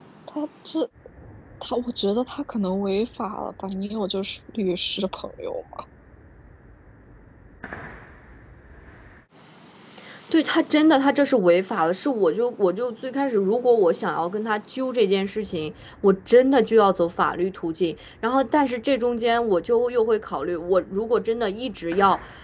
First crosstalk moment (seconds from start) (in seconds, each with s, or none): none